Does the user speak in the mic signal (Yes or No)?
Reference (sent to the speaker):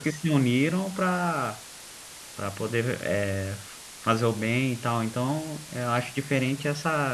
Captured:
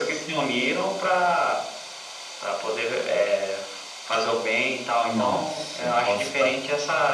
Yes